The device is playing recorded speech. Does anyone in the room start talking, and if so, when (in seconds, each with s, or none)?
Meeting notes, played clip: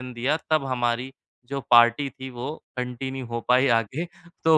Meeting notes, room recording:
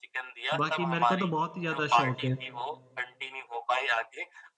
0.5 s